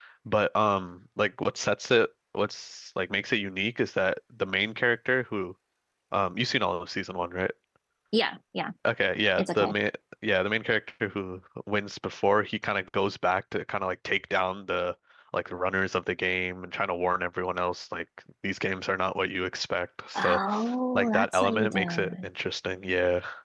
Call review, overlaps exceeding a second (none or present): present